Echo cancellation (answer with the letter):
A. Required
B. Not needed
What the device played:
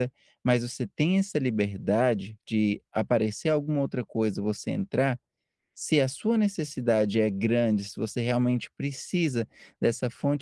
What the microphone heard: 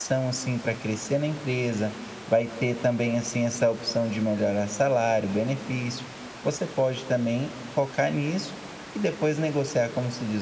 B